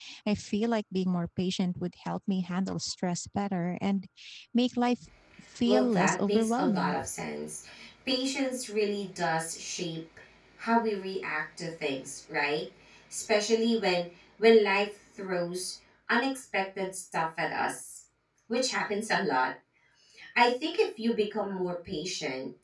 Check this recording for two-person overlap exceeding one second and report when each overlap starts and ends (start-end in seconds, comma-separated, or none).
5.7-7.0